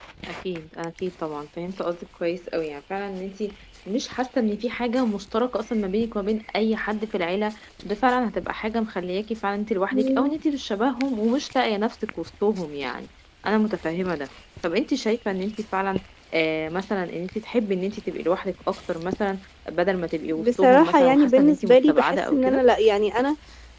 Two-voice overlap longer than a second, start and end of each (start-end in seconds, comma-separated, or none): 20.4-22.6